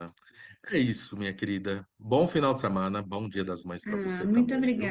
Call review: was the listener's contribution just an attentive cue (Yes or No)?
No